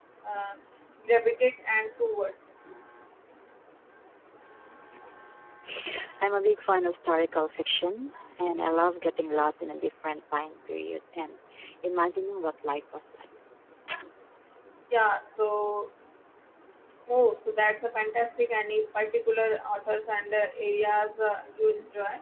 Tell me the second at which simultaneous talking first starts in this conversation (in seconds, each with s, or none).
none